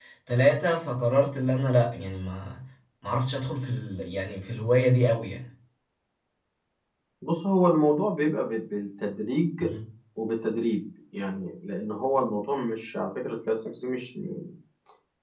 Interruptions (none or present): none